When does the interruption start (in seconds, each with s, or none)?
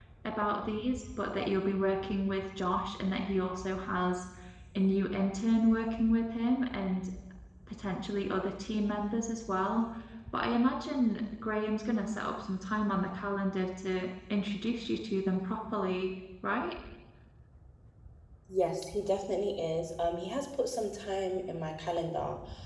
none